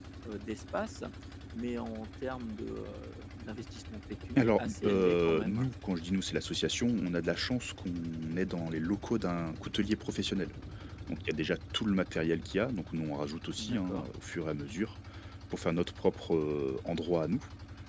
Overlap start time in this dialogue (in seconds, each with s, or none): 4.4 s